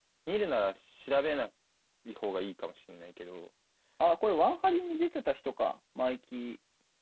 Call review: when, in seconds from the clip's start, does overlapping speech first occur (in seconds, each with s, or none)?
none